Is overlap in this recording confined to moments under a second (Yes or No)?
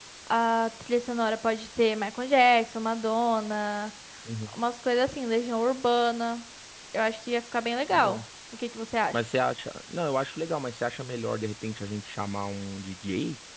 Yes